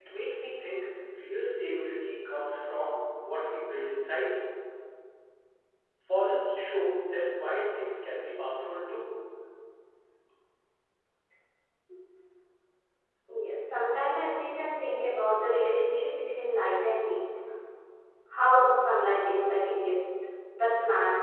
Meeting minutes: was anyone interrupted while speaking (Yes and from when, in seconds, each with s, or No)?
No